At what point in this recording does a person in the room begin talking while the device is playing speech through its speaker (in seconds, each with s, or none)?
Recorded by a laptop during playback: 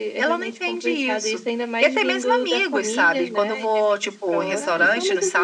4.3 s